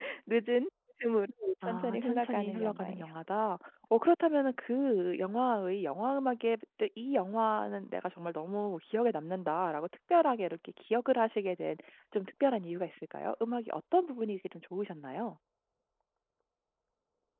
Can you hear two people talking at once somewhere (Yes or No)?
Yes